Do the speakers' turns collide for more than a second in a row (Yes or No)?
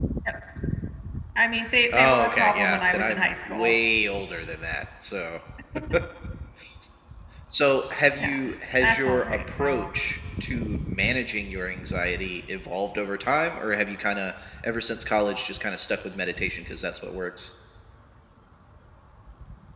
Yes